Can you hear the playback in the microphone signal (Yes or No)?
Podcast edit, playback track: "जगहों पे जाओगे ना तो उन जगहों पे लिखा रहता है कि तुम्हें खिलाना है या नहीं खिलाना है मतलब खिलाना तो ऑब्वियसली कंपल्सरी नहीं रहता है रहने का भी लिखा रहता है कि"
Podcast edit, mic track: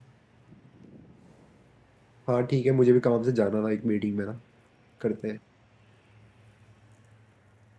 No